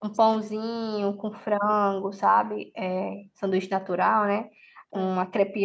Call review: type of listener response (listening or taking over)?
listening